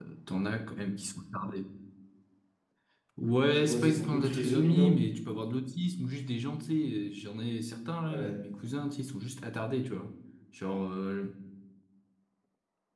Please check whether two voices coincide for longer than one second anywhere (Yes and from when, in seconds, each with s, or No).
Yes, from 3.6 s